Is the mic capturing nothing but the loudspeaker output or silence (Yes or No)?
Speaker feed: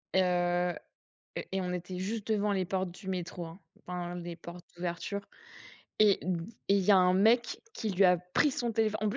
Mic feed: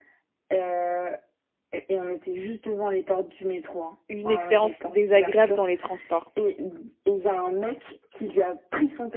No